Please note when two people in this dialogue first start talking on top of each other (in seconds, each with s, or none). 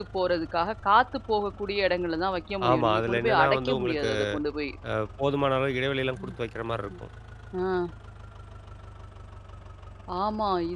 2.6 s